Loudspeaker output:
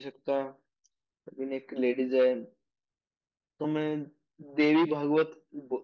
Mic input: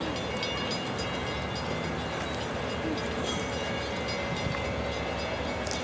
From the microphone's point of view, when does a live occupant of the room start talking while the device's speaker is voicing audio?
none

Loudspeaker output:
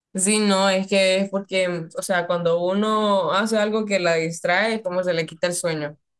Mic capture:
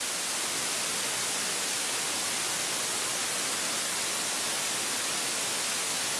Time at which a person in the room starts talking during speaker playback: none

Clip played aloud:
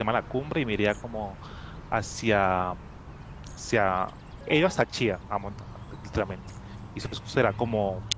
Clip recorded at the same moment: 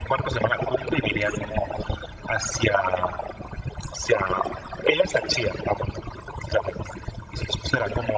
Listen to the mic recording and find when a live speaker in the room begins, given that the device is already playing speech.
none

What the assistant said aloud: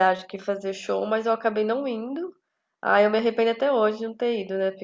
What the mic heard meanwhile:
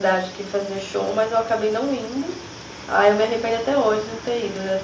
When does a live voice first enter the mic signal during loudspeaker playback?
none

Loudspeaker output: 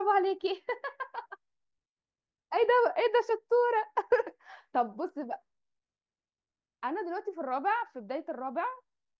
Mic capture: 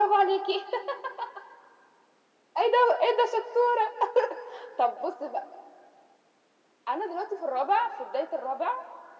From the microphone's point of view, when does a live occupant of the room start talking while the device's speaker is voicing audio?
none

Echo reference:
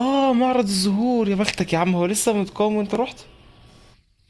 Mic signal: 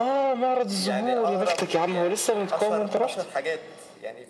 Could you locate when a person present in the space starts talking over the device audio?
0.8 s

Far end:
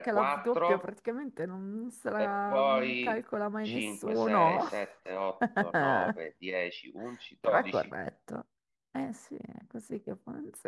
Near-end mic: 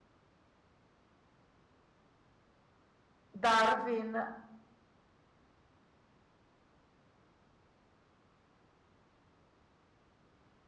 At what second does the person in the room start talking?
3.3 s

